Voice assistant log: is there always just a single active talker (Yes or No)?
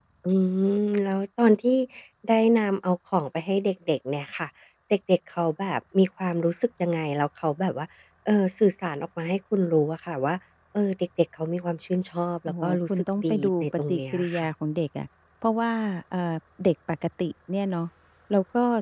No